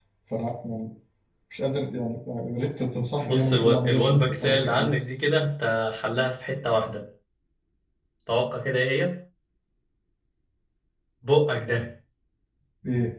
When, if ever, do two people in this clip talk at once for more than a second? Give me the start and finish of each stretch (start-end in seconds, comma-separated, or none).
3.2-5.1